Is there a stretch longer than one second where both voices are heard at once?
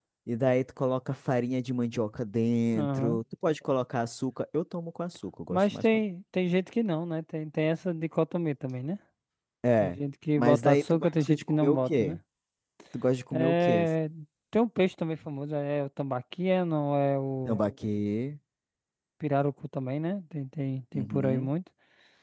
Yes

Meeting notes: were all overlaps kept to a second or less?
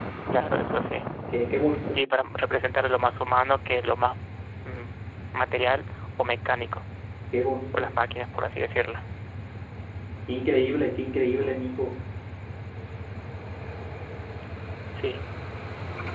Yes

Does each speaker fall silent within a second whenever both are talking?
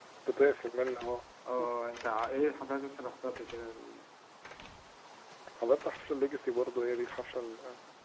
Yes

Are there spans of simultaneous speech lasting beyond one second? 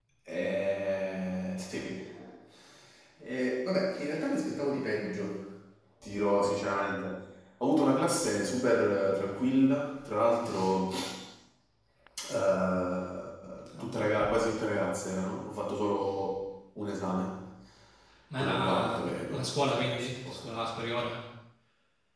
Yes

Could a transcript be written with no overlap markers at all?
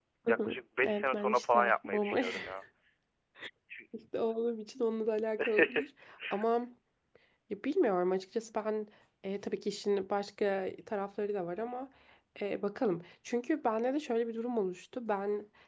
No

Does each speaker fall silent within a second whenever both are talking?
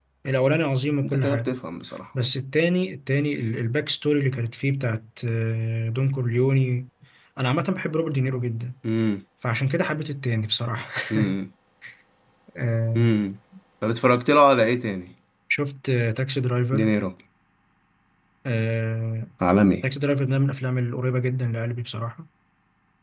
Yes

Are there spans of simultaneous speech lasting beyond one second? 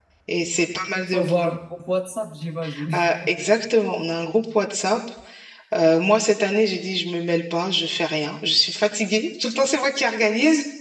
No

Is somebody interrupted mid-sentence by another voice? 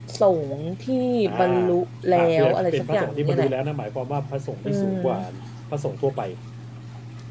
Yes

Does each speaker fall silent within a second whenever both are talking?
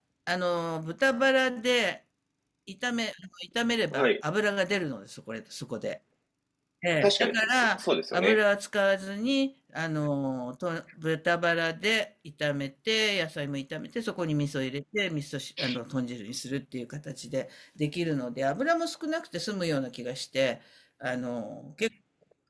No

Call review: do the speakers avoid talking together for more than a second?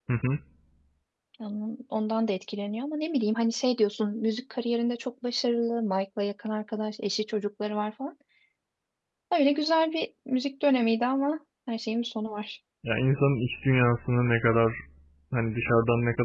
Yes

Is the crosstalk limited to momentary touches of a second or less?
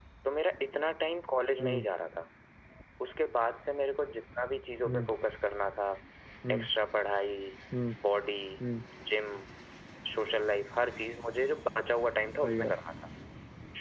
Yes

